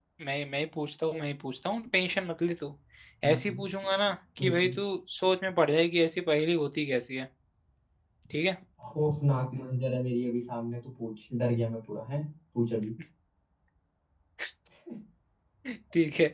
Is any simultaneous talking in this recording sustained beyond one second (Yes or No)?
No